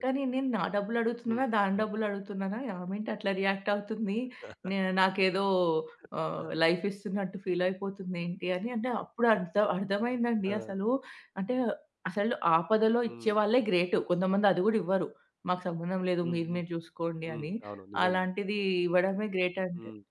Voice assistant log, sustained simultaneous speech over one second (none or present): none